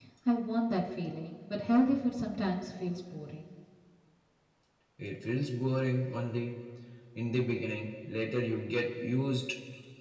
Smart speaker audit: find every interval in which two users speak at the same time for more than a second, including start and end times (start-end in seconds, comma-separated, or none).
none